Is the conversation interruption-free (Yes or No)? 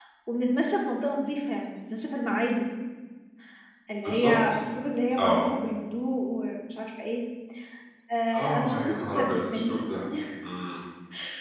No